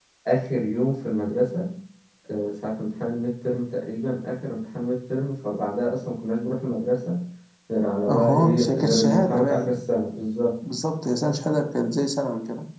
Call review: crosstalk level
present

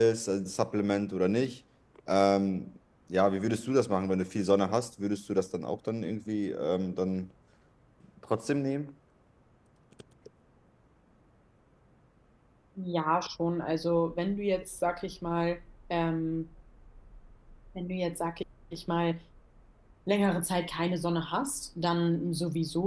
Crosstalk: none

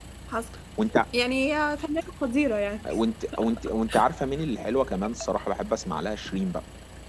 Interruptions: none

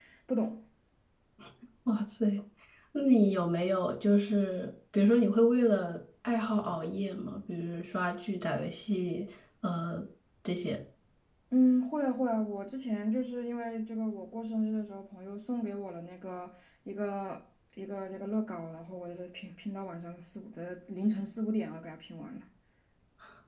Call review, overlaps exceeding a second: none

